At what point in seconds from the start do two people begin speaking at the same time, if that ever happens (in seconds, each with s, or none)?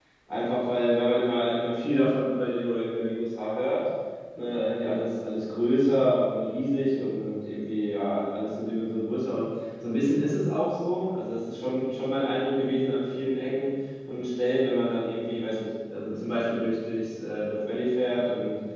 none